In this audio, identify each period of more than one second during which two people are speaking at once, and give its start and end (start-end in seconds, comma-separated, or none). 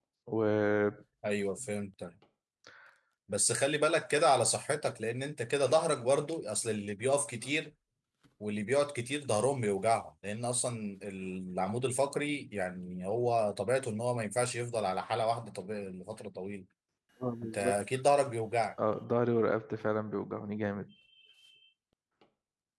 none